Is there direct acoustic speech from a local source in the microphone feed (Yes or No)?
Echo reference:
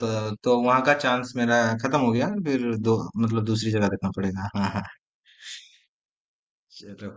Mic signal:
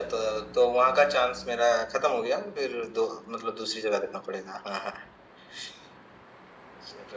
No